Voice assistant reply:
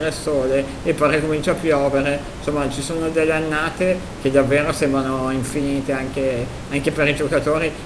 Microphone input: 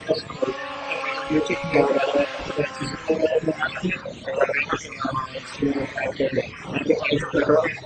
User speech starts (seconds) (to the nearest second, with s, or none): none